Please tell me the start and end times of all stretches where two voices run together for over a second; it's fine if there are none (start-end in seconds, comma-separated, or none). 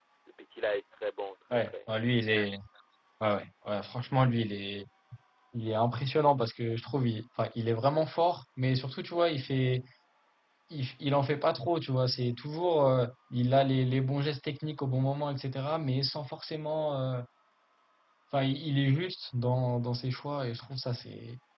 none